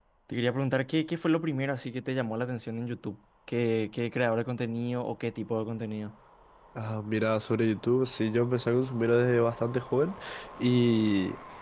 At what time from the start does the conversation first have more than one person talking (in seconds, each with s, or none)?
none